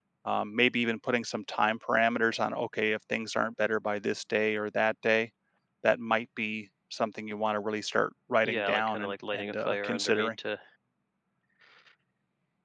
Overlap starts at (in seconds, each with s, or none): 8.4 s